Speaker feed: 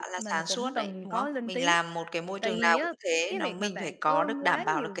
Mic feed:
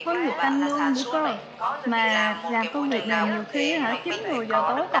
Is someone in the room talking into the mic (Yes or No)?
Yes